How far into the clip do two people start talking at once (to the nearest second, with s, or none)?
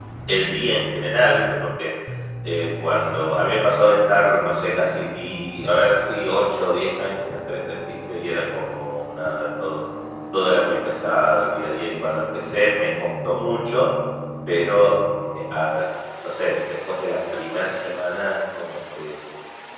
none